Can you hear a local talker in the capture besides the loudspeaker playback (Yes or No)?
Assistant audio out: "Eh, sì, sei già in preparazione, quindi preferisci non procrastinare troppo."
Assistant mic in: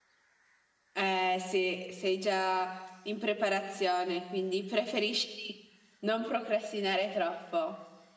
No